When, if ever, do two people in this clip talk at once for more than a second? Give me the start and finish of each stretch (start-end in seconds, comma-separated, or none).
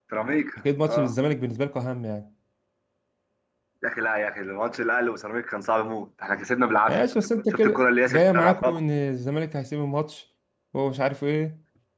7.5-8.8